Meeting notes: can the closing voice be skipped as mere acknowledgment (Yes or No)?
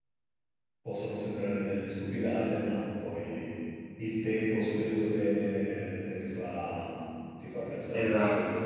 No